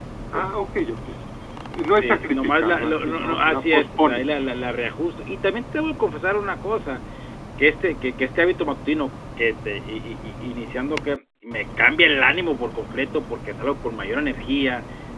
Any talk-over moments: Yes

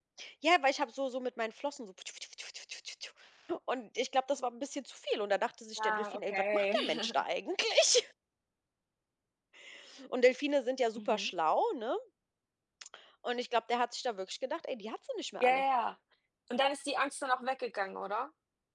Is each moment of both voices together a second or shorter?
No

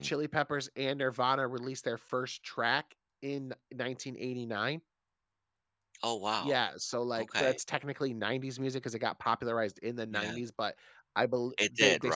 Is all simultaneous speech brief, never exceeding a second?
Yes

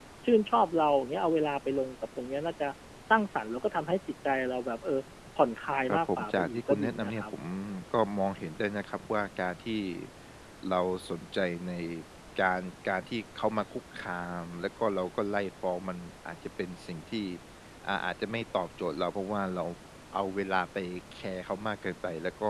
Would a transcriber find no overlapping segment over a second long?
No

